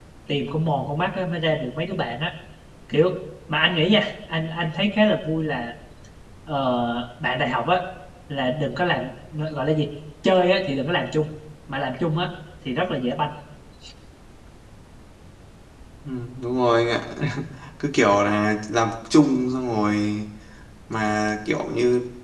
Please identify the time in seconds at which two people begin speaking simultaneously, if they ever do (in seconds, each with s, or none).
none